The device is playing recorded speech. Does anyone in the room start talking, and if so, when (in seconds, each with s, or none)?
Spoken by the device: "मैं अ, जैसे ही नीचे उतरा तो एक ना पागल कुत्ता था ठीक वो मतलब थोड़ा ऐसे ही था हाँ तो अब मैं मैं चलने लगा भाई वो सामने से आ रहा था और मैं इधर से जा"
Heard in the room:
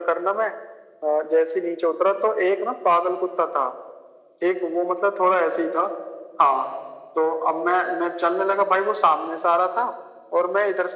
none